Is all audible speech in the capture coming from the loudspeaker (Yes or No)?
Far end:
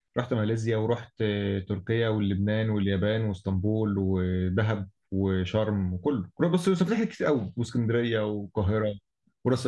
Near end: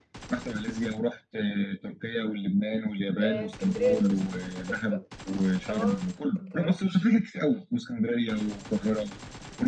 No